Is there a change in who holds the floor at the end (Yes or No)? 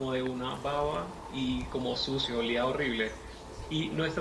No